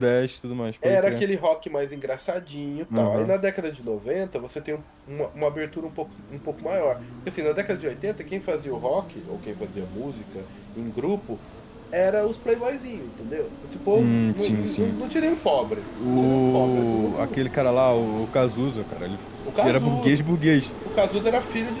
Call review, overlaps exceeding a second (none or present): present